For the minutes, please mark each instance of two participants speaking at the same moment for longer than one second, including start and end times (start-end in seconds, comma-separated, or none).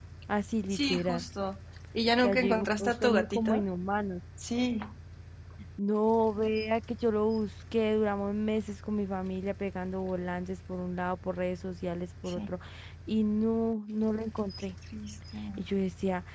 2.2-3.6